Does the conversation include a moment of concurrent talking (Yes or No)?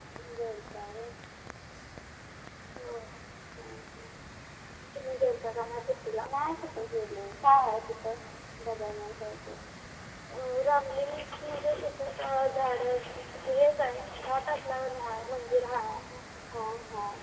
No